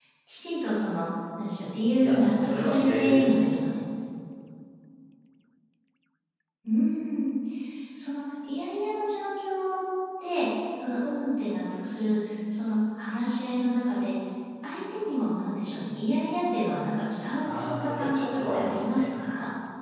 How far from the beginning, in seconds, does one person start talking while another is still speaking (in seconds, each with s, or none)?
2.0 s